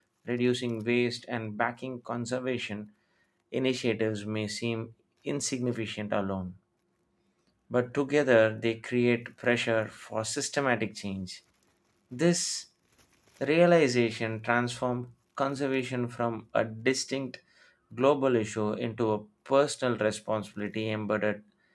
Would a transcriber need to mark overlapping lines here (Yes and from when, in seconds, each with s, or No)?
No